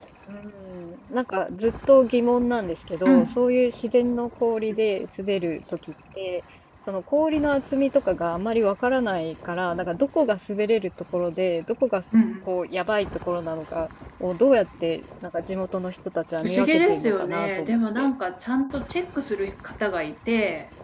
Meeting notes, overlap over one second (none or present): present